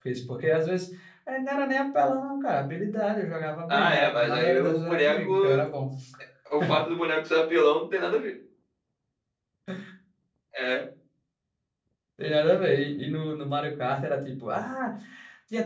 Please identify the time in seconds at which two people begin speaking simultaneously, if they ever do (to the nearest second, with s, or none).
4 s